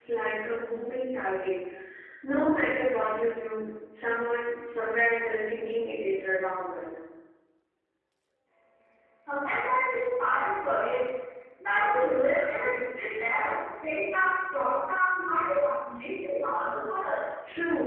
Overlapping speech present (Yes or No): No